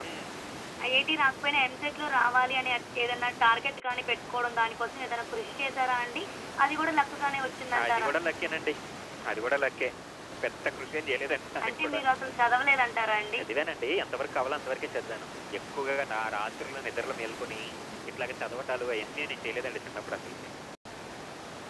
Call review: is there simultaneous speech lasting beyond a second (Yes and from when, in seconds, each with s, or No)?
Yes, from 6.6 s